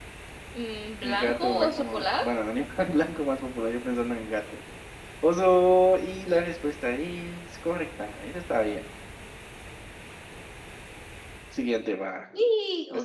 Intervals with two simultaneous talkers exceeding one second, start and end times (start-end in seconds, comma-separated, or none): 1.0-2.2